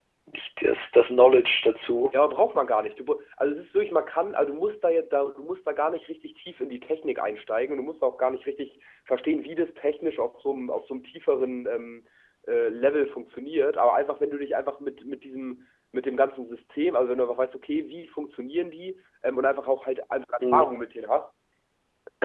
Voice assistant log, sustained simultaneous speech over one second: none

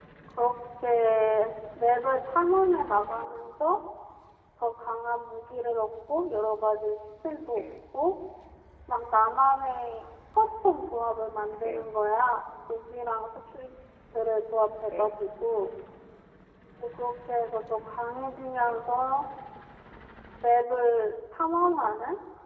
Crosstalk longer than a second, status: none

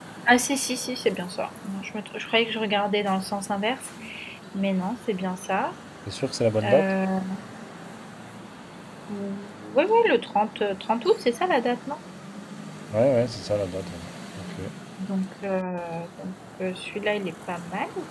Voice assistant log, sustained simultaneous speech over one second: none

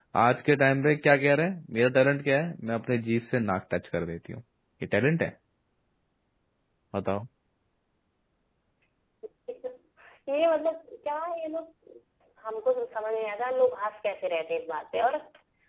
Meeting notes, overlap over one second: none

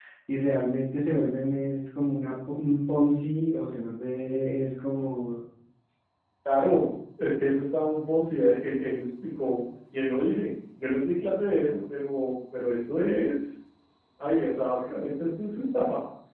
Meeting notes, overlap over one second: none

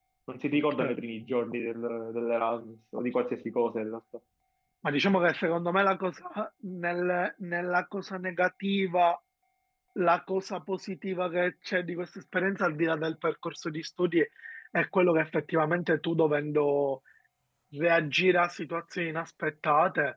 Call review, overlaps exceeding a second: none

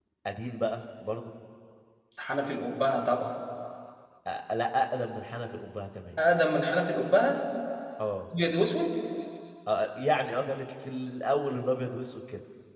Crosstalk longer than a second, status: none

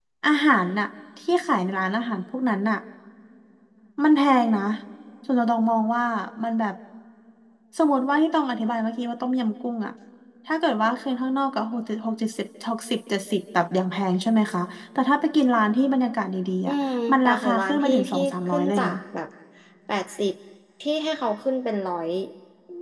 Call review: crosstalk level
present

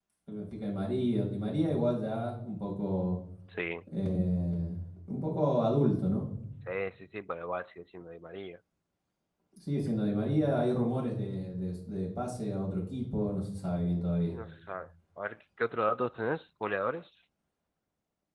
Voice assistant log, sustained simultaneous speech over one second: none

